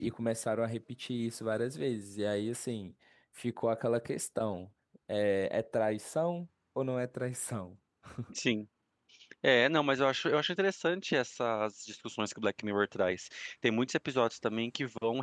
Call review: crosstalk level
none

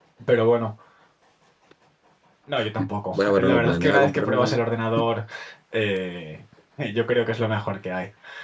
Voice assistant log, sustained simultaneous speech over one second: present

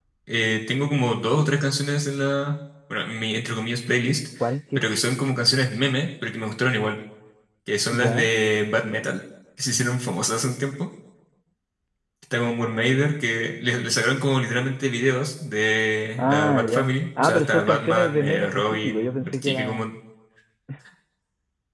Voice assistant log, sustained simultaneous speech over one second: present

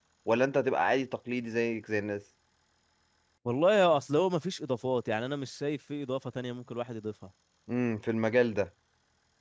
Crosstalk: none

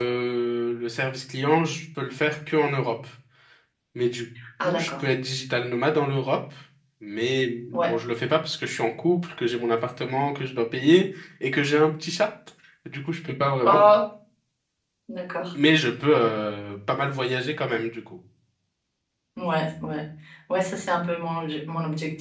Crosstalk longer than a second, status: none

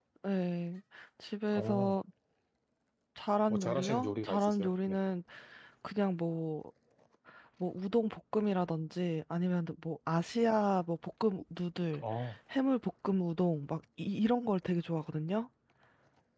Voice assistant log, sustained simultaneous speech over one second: present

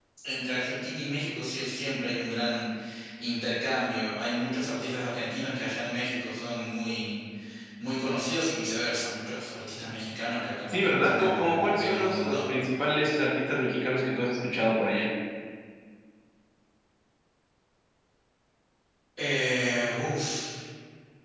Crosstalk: present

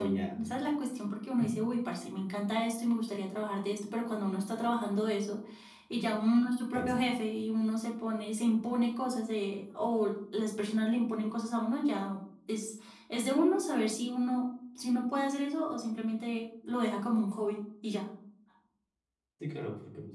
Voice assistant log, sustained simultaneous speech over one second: none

